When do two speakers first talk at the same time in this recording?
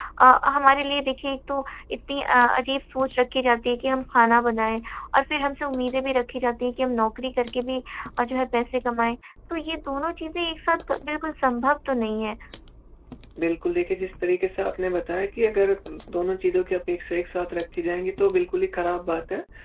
none

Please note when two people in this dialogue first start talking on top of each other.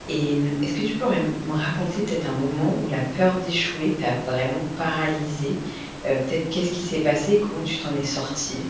none

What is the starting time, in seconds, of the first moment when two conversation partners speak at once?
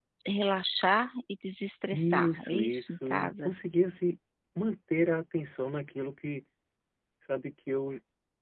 1.9 s

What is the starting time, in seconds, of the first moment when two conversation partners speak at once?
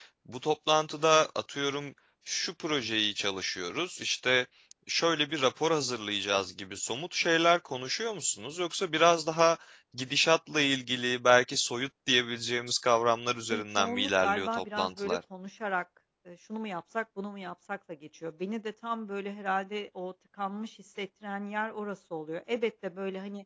13.5 s

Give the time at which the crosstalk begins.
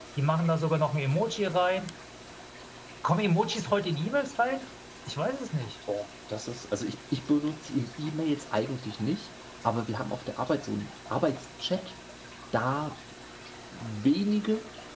none

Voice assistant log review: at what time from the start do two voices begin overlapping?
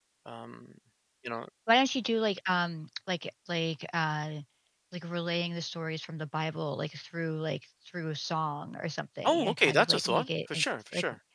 9.2 s

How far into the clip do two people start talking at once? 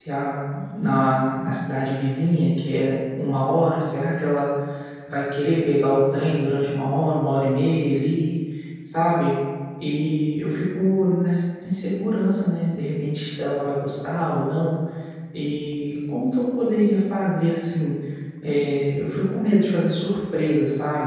none

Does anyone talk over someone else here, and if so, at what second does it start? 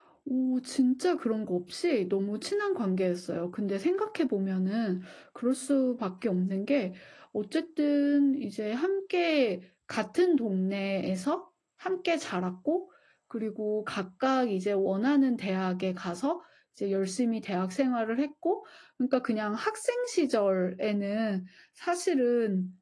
none

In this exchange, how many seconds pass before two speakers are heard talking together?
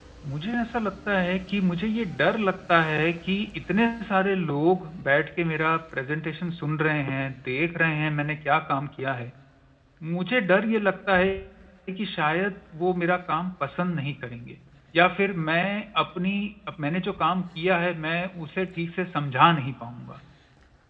none

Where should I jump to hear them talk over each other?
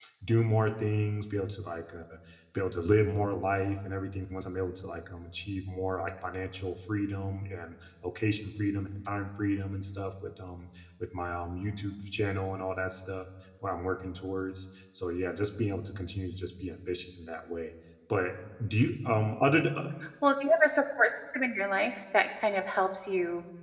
none

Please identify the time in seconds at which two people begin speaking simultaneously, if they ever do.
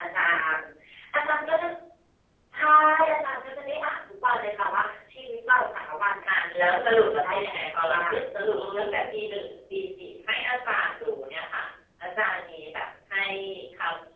6.5 s

